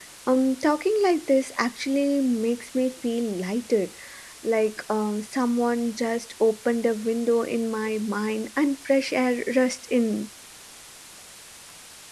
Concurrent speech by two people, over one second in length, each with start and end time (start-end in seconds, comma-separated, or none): none